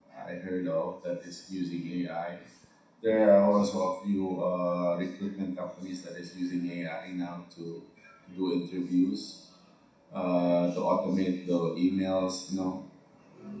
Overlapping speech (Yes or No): No